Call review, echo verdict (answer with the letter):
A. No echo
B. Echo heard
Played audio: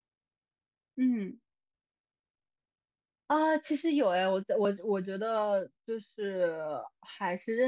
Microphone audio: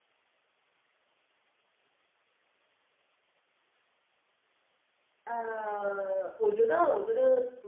A